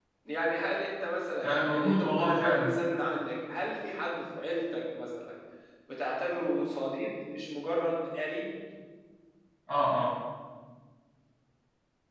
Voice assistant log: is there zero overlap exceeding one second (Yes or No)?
No